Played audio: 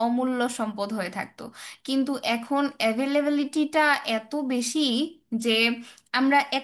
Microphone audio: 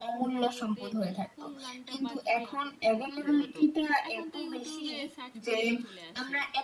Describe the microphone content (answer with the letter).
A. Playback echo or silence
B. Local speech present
B